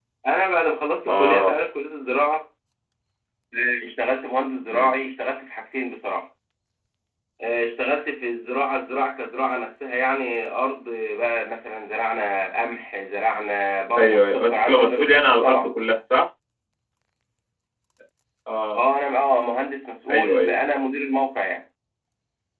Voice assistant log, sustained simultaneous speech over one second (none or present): present